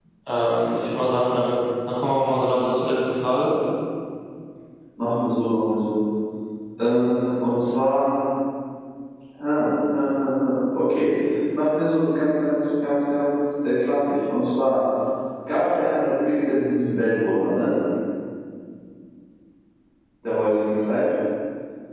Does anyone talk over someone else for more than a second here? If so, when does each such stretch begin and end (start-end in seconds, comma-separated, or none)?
none